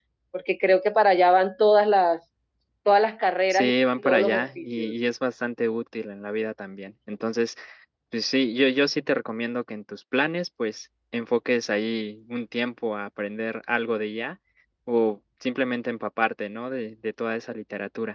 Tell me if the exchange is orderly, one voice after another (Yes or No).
No